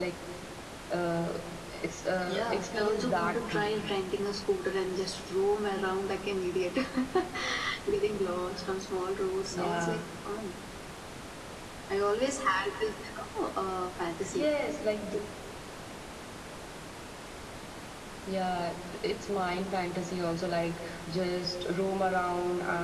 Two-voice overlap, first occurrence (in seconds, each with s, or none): 2.3 s